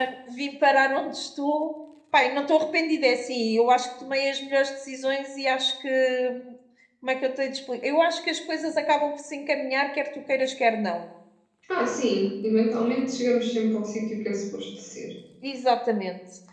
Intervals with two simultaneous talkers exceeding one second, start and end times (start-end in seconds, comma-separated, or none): none